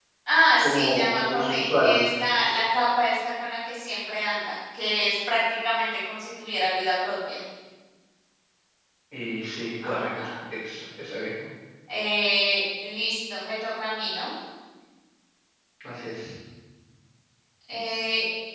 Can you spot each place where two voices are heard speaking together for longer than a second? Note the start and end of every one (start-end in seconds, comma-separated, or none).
0.6-2.0